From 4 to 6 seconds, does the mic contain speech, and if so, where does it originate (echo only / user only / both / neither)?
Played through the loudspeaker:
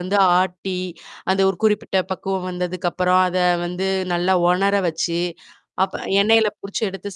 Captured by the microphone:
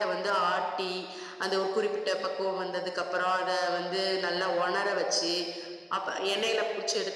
echo only